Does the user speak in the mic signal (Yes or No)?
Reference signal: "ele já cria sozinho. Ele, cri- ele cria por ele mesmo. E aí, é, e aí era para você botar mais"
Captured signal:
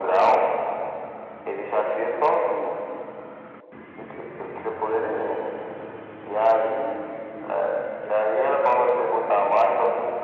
No